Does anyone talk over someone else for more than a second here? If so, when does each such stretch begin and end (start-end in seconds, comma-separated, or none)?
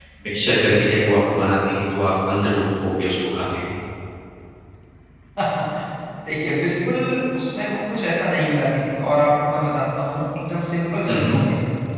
none